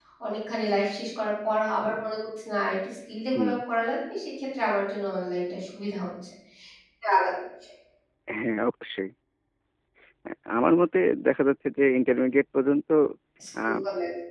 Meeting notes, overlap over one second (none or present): none